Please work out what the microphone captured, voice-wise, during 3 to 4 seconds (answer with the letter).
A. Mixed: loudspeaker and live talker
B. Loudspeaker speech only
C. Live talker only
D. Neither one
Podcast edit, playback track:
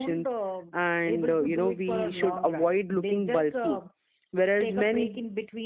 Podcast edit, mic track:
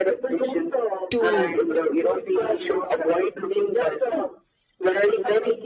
B